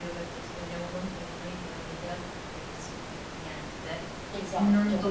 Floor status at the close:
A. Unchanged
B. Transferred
A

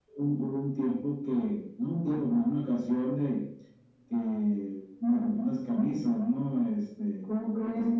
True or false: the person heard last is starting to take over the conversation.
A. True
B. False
B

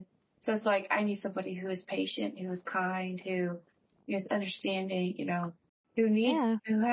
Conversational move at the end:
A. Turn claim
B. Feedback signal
B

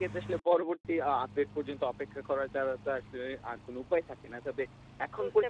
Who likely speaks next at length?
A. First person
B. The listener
B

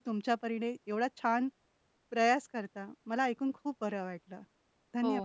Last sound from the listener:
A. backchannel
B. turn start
B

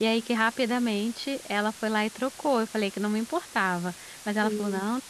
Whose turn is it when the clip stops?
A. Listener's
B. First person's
B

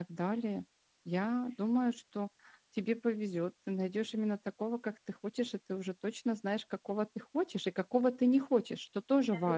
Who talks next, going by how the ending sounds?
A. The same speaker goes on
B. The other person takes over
B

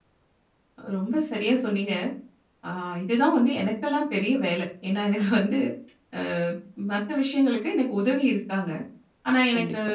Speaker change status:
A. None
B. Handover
A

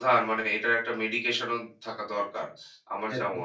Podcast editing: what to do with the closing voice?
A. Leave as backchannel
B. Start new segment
B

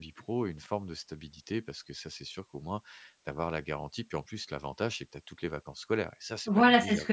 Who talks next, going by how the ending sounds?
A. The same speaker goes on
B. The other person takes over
B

